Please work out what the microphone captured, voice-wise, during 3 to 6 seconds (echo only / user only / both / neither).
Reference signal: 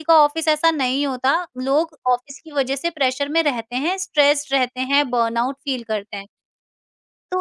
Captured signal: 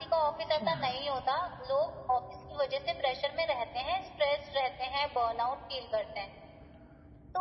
echo only